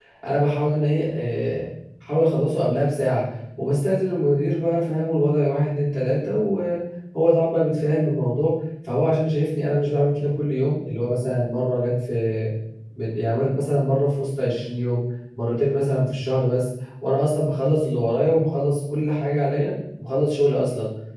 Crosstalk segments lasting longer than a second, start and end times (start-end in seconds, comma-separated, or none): none